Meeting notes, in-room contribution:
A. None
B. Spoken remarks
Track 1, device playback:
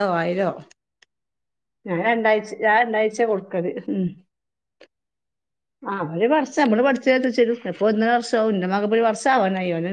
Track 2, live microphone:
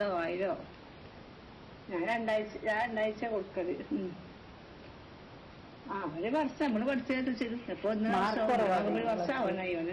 B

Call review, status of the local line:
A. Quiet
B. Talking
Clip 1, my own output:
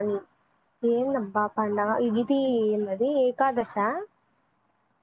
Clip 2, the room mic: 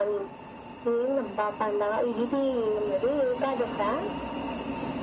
A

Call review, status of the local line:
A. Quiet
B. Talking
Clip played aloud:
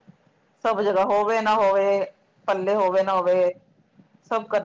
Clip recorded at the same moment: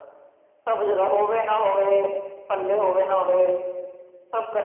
A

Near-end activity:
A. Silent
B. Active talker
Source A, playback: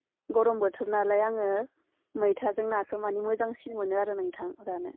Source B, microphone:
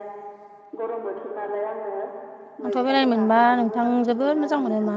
B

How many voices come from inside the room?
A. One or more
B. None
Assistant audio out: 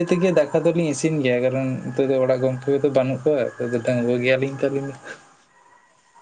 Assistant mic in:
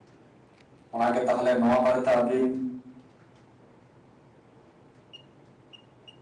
A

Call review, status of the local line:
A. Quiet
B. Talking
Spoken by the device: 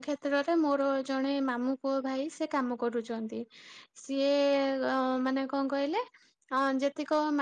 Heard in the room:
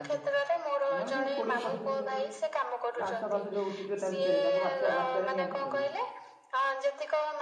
B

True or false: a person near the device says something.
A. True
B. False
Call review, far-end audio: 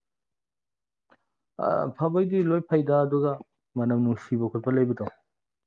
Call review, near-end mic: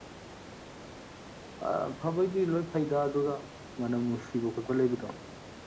B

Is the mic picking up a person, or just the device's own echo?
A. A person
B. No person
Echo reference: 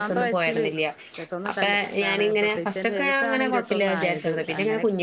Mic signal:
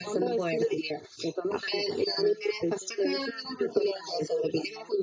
B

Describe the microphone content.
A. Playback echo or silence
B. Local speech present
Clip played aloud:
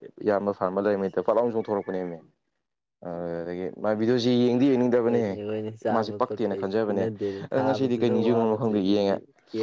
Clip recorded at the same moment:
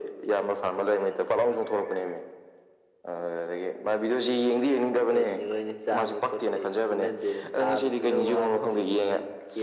A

